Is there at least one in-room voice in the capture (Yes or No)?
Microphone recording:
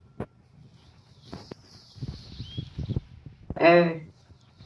Yes